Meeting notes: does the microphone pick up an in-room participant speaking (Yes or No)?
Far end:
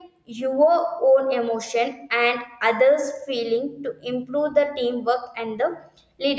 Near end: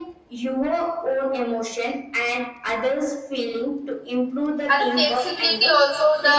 Yes